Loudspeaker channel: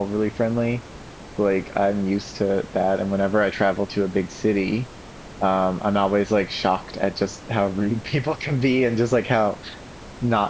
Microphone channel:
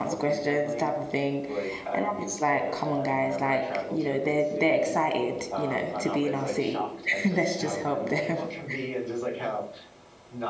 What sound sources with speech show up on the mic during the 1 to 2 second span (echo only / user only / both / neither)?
both